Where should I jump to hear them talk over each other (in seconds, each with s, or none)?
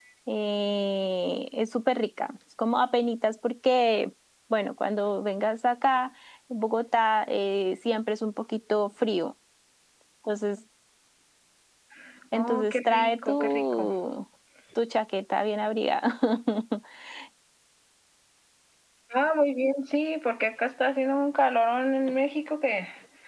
12.3 s